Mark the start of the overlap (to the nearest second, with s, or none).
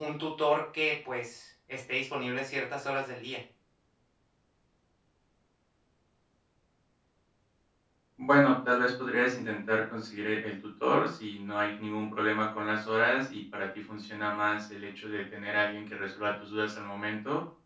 none